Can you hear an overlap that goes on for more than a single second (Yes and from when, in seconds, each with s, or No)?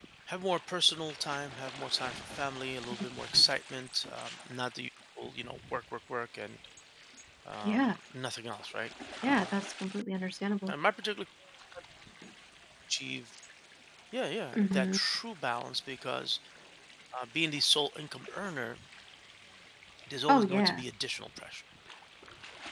No